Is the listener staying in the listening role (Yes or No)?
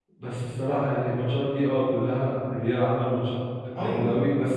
No